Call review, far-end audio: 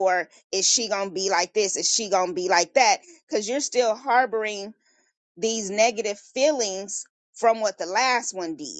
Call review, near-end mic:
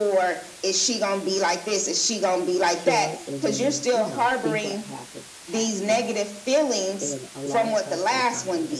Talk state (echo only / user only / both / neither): both